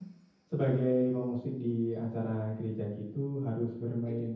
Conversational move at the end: listening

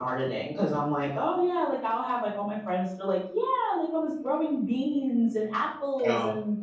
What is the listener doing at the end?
listening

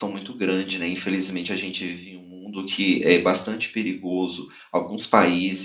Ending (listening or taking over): listening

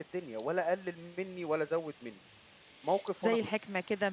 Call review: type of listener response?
taking over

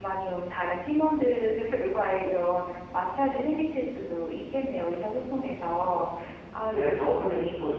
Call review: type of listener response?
taking over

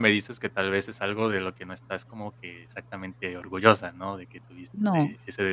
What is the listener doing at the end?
listening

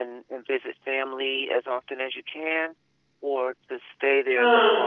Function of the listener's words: listening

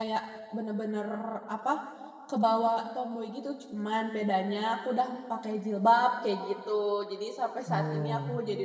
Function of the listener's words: listening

